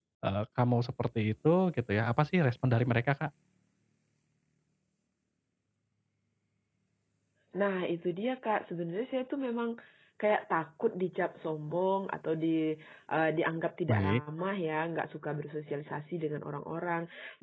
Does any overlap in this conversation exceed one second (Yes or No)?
No